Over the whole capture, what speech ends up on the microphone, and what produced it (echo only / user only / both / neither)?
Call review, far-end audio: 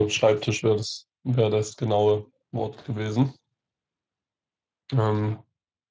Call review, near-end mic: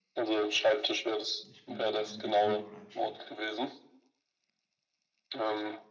both